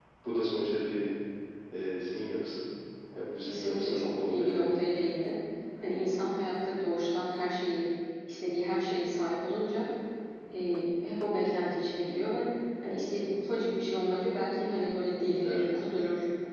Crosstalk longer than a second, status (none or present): present